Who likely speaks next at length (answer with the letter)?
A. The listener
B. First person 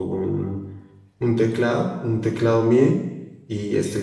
B